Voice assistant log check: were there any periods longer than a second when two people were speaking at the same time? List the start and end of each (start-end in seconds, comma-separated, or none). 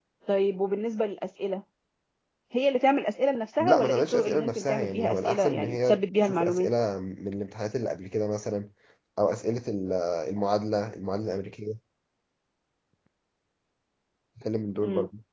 3.6-6.7